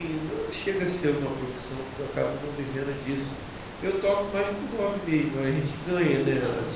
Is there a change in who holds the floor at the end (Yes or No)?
No